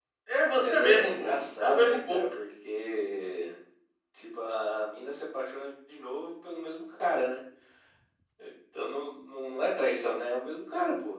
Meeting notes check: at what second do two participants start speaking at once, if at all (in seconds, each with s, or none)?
0.6 s